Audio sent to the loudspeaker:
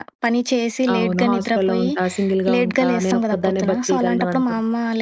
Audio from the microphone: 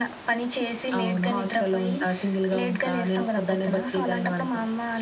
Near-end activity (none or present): none